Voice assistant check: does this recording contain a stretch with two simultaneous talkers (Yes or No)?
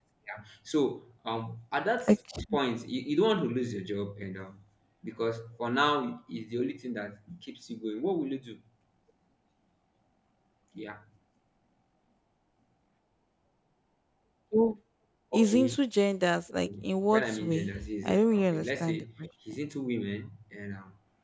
Yes